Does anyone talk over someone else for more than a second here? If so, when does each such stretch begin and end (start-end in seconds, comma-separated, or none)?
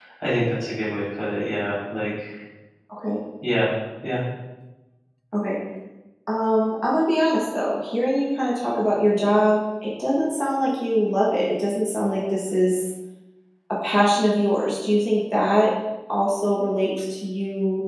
none